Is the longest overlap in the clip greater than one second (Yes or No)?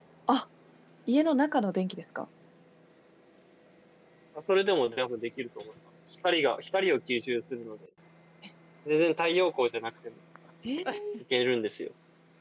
No